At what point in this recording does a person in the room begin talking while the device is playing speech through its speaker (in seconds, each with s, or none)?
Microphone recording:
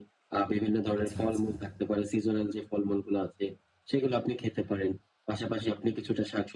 1.0 s